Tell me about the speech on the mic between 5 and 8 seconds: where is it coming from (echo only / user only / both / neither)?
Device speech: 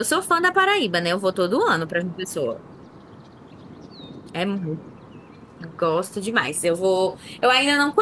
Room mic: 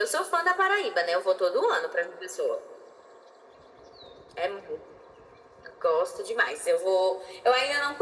echo only